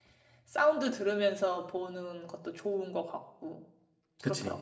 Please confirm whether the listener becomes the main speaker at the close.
Yes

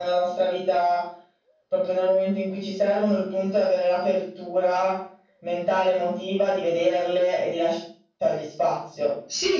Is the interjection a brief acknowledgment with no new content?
No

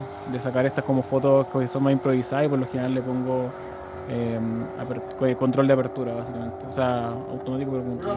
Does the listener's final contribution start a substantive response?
Yes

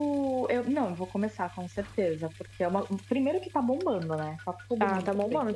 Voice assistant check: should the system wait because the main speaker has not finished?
No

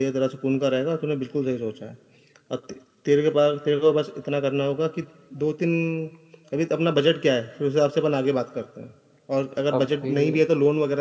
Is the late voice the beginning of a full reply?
No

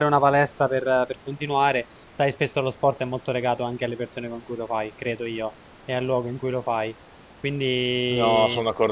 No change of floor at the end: No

